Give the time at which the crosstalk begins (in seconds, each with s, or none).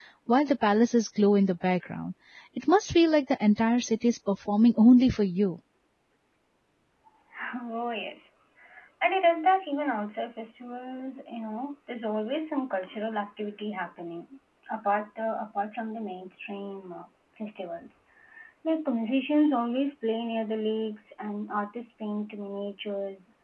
none